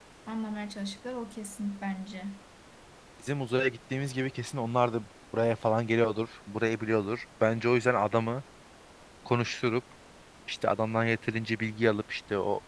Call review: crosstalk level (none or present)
none